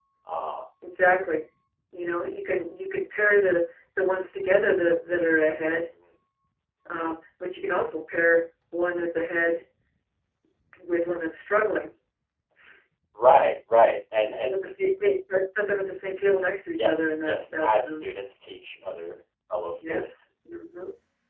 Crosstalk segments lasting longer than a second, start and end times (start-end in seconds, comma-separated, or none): 16.8-18.0